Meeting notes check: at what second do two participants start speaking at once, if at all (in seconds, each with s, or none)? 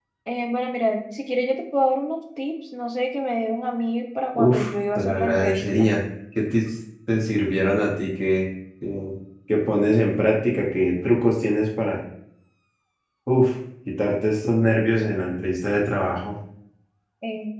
4.3 s